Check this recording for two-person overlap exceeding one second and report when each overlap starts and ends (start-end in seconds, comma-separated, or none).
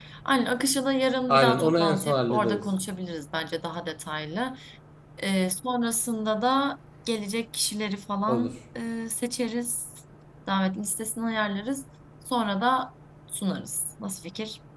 1.3-2.6